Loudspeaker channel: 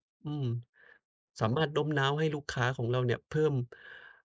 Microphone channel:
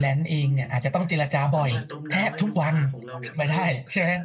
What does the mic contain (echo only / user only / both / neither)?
both